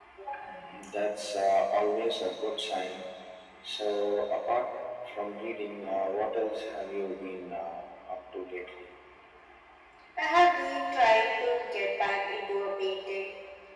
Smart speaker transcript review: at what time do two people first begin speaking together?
none

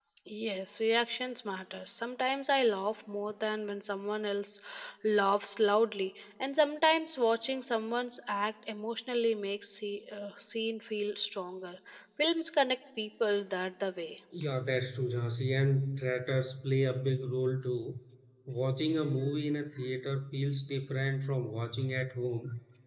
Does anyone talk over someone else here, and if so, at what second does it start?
none

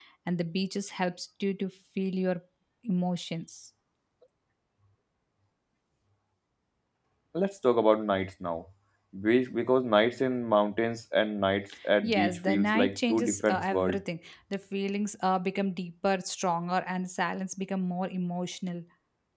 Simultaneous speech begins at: 12.0 s

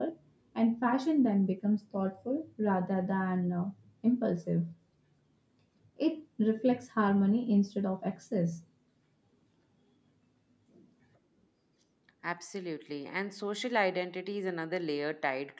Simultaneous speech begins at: none

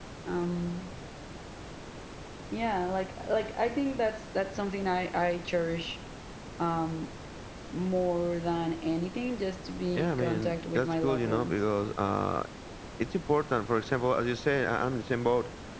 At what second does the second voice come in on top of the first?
9.9 s

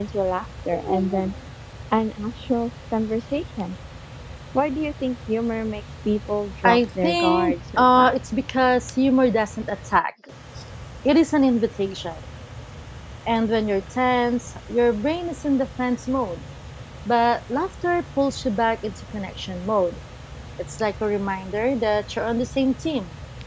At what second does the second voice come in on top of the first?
6.6 s

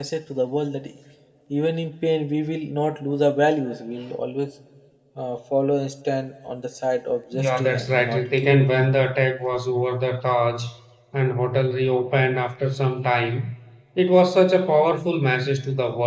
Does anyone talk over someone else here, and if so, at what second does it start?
7.3 s

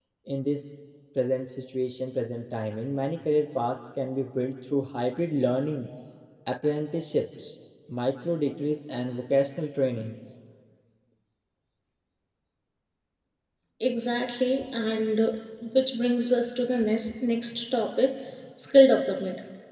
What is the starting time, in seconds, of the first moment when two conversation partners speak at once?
none

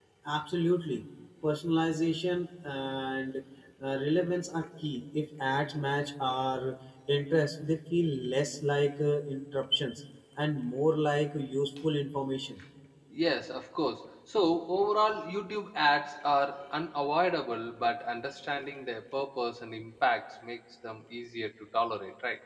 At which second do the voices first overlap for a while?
none

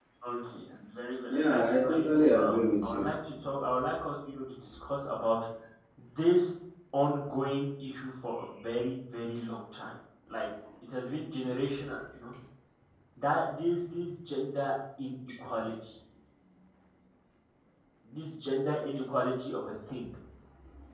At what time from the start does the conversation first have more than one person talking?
1.3 s

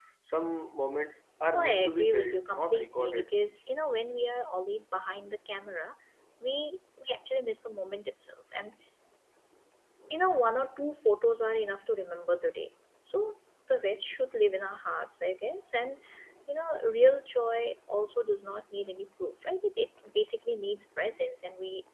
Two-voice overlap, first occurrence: 1.5 s

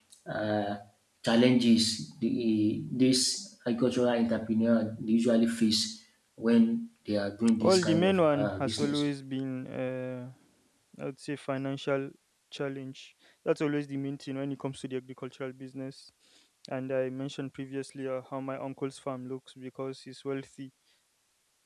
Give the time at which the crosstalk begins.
7.6 s

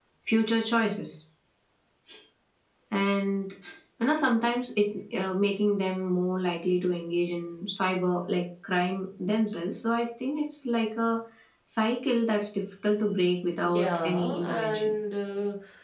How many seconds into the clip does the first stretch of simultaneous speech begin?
13.6 s

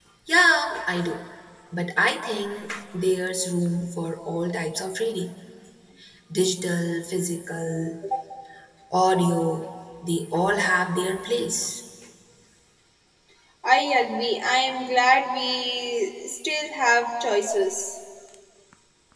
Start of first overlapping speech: none

